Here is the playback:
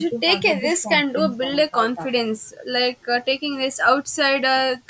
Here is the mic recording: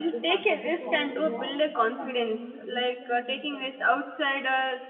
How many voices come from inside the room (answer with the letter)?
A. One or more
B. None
A